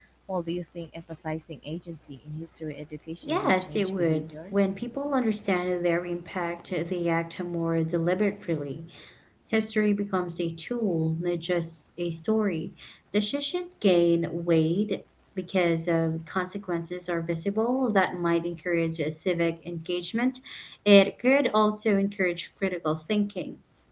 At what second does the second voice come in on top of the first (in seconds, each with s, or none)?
3.2 s